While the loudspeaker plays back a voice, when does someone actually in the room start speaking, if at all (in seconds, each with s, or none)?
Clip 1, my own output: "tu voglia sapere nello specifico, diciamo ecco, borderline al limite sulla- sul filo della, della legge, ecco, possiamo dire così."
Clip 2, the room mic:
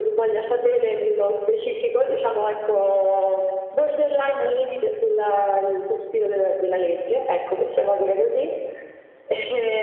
none